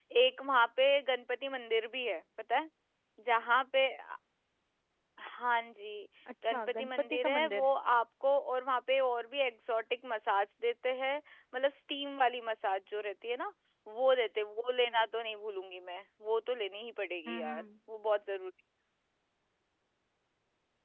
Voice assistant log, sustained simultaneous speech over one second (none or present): present